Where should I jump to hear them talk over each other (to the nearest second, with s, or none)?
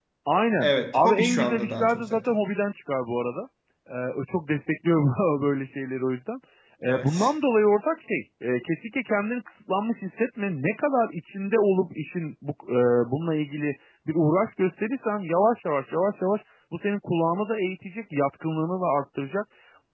1 s